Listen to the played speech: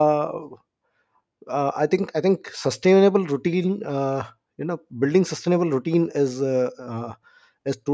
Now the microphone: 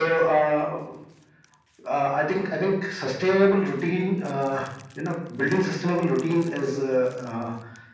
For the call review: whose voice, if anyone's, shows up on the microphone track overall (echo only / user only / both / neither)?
echo only